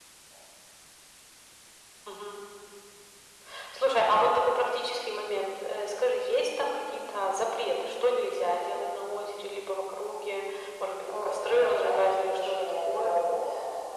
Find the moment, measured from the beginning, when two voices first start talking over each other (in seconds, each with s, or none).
11.0 s